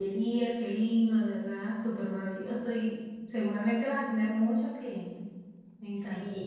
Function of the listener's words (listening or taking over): taking over